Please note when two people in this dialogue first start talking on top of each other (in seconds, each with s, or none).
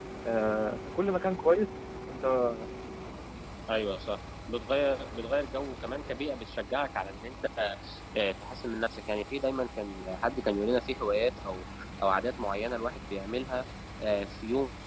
none